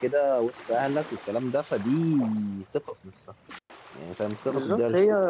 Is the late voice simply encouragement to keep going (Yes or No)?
No